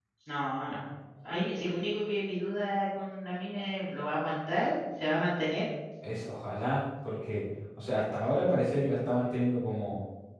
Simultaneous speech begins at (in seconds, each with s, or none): none